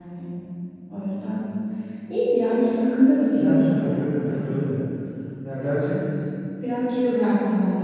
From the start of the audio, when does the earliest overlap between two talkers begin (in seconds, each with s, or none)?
3.3 s